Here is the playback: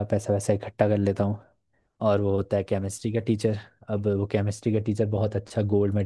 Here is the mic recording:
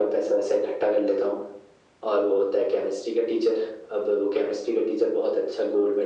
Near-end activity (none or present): none